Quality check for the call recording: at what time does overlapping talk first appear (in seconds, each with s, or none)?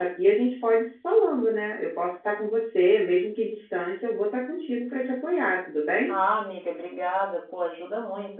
none